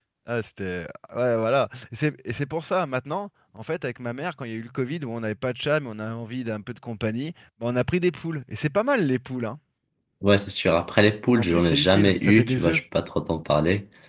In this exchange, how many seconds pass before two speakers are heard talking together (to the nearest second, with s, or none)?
11 s